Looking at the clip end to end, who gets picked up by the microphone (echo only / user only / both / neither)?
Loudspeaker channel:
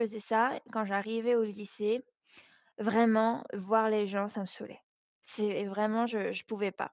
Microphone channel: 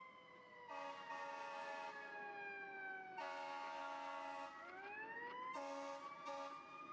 neither